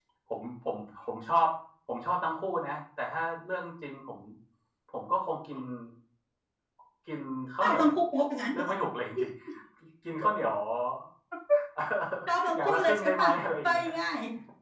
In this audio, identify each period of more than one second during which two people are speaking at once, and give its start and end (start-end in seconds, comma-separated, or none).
12.6-13.9